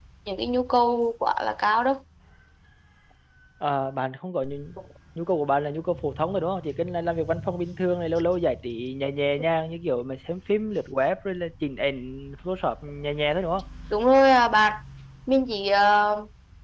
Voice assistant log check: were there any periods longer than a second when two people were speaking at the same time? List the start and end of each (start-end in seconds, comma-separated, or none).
none